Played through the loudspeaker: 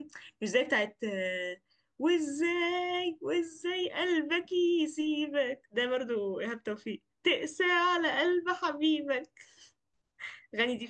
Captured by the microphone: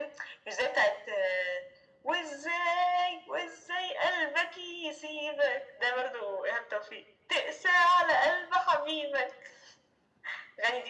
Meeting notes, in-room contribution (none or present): none